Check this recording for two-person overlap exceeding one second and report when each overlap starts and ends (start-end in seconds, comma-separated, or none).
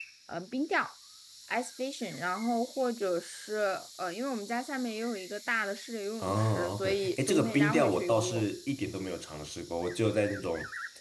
6.2-8.4